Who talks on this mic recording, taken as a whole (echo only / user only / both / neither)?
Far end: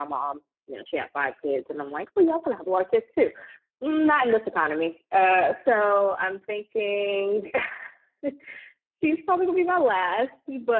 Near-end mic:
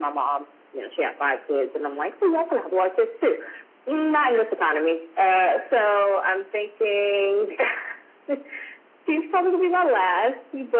echo only